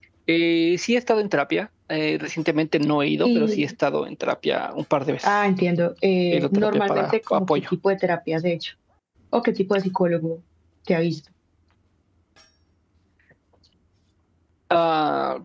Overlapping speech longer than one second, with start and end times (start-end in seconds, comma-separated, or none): 6.3-7.6